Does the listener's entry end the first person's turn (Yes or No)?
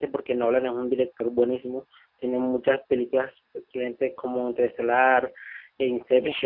No